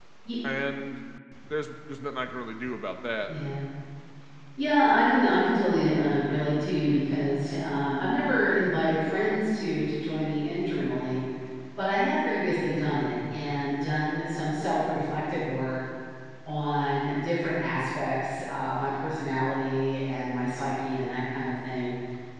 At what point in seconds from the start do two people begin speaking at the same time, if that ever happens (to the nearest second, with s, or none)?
none